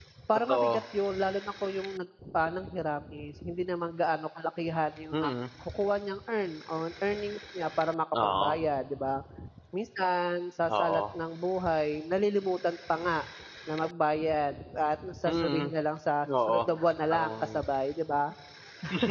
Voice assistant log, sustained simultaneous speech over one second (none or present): none